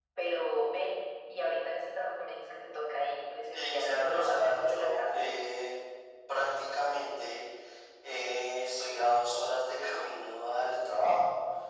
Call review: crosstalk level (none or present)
present